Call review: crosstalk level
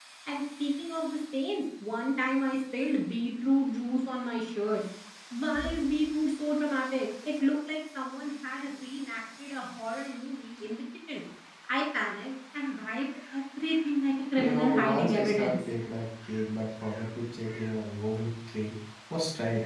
present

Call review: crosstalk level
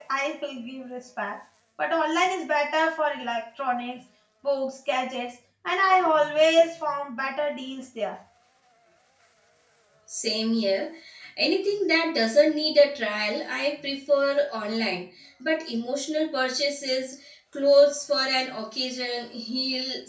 none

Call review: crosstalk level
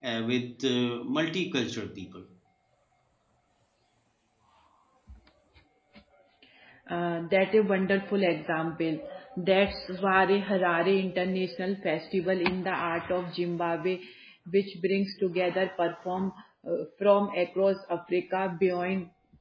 none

